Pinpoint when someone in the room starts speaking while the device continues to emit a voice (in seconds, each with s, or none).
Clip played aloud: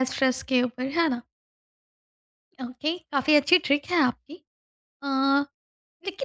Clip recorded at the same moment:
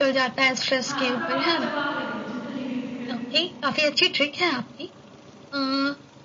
0.8 s